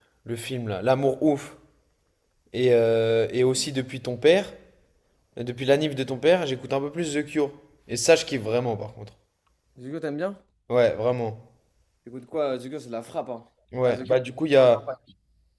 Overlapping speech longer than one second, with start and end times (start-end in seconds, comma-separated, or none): none